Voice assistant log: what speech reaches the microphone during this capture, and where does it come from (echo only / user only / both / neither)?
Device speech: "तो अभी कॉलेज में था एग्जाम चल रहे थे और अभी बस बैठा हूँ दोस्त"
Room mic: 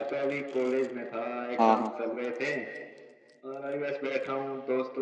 both